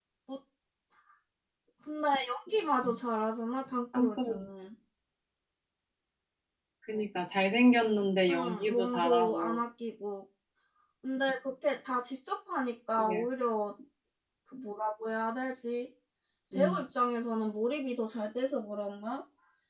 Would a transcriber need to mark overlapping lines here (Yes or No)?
Yes